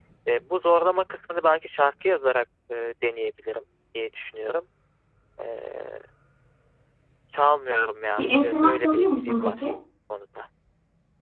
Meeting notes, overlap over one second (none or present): present